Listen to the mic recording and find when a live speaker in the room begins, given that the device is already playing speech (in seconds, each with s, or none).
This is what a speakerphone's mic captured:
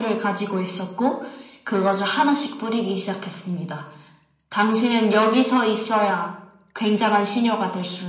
none